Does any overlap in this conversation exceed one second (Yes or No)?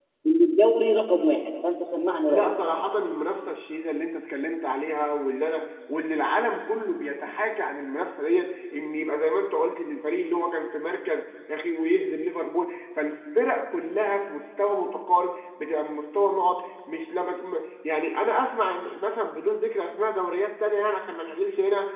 No